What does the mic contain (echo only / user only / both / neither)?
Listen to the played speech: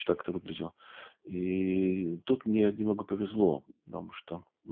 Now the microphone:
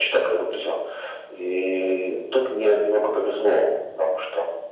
echo only